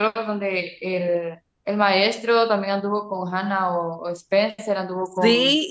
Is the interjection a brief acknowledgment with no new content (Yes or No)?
No